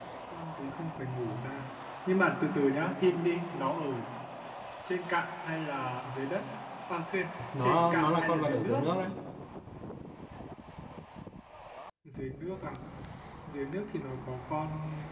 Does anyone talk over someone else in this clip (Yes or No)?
Yes